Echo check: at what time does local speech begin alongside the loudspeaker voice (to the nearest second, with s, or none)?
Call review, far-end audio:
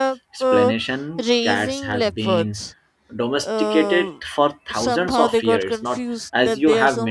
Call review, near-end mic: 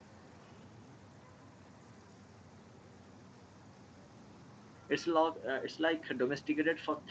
5 s